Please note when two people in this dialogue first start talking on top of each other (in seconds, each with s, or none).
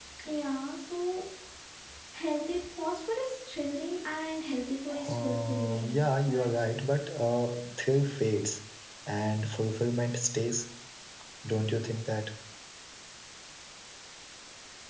4.9 s